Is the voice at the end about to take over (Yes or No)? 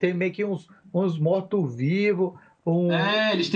Yes